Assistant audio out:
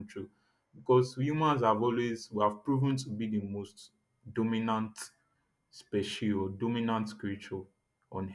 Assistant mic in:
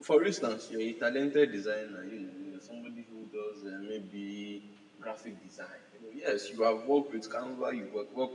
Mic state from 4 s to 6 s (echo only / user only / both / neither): user only